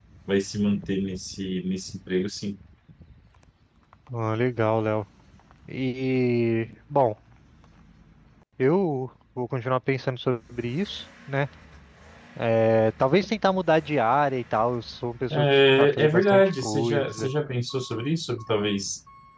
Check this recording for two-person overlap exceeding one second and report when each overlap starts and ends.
15.3-17.3

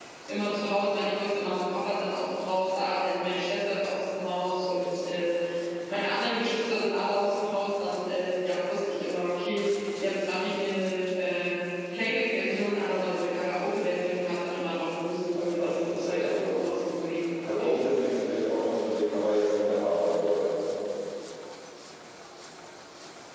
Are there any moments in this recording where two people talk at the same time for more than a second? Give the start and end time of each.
15.3-16.6

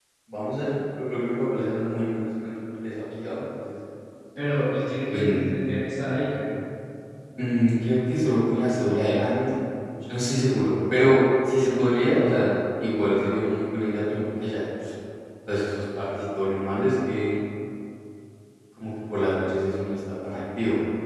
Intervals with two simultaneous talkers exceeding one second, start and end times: none

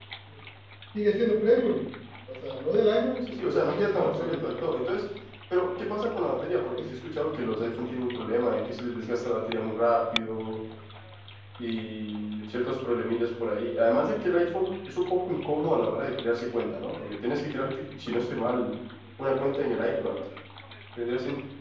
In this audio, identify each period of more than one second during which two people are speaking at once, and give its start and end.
3.3-4.5

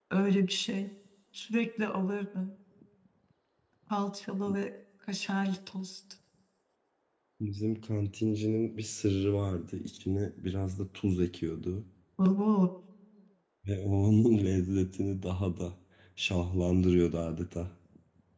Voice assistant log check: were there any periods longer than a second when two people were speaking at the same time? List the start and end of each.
none

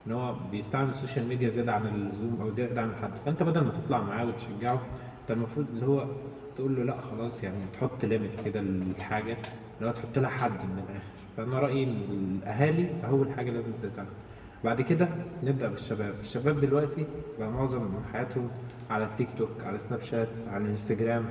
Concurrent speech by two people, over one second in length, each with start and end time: none

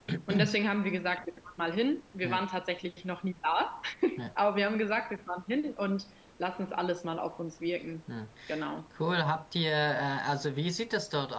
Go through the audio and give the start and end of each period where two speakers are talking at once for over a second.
none

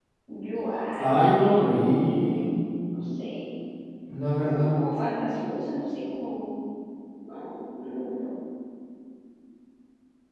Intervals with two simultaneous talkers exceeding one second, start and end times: 1.0-2.5

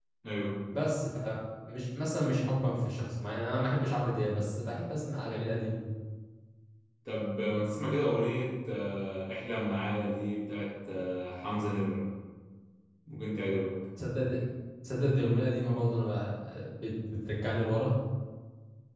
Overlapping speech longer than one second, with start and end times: none

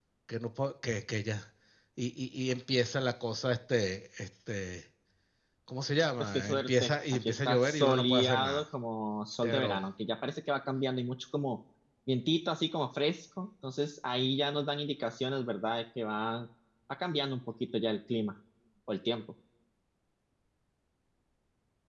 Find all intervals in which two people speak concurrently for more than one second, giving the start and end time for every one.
6.2-8.6

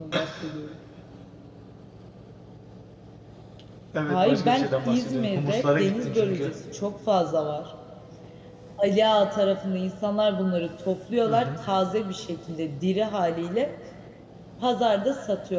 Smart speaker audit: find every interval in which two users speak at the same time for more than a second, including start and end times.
4.1-6.5

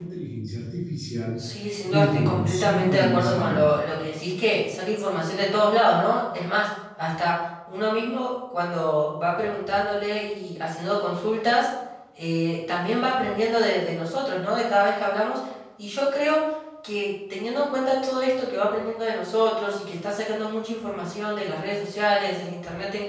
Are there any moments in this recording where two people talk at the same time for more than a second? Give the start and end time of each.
1.9-3.8

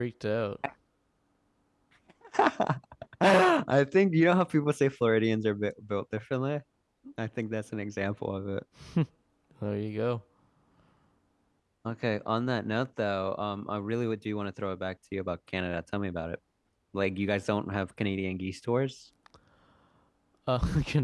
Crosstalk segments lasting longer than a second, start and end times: none

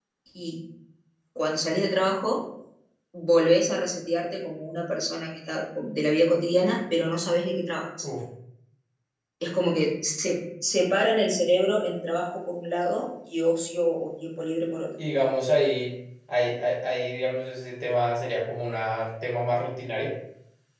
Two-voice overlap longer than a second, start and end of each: none

